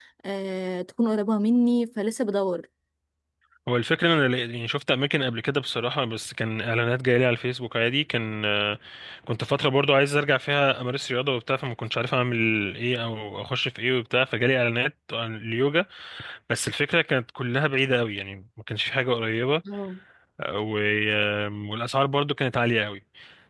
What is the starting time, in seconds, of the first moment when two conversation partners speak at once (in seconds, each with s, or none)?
none